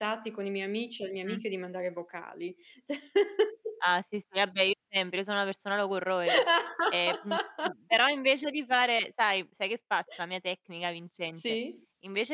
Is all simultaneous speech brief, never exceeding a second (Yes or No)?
Yes